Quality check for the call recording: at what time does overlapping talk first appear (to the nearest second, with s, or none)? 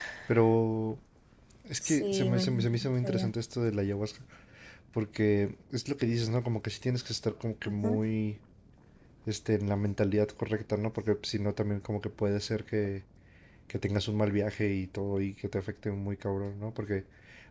2 s